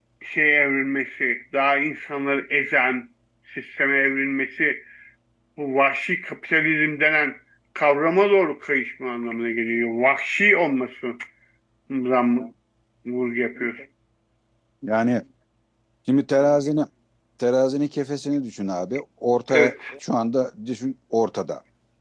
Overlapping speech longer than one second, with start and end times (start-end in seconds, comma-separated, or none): none